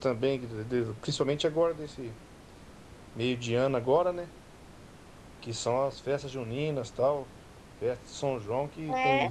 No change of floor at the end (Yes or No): Yes